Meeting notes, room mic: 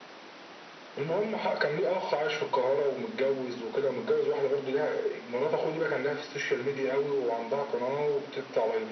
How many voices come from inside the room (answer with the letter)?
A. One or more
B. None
B